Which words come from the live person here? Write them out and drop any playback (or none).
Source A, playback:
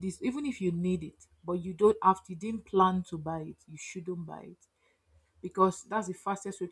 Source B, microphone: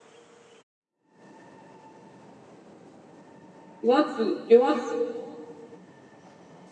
they want to they want